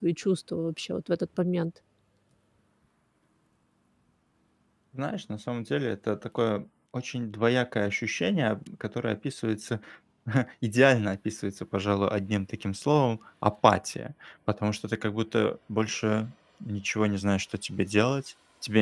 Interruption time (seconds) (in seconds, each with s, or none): none